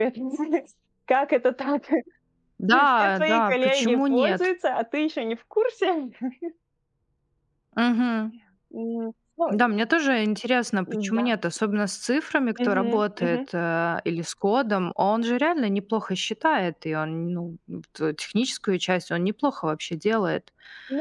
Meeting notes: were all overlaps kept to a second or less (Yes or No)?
No